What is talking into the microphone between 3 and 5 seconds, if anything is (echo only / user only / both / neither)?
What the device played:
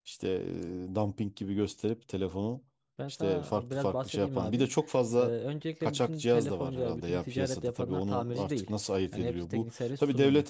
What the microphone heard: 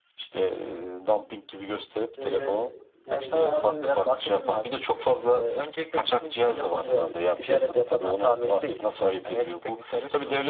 both